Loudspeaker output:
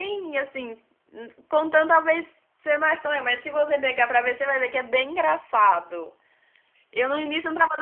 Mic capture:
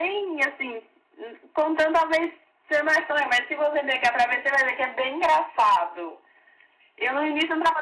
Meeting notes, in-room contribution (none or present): none